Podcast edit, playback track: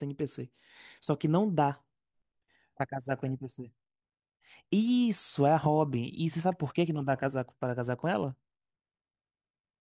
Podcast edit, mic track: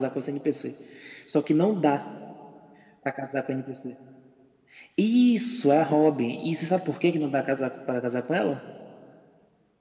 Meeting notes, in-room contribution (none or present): none